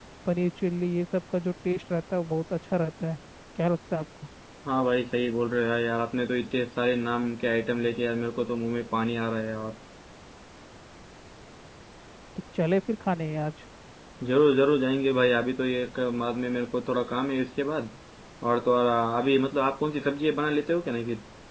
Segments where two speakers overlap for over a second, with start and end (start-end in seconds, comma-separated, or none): none